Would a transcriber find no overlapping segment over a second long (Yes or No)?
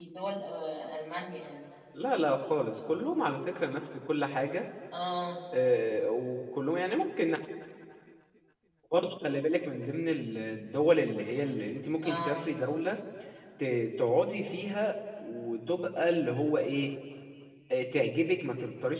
Yes